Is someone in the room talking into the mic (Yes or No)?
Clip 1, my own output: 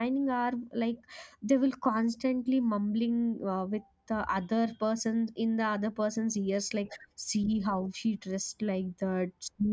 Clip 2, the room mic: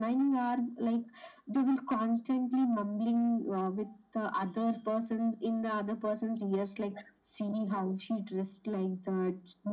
No